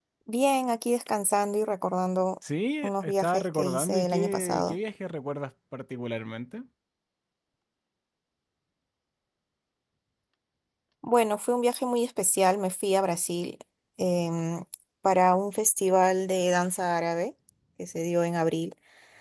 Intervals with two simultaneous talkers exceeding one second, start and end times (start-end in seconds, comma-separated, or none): 2.8-4.8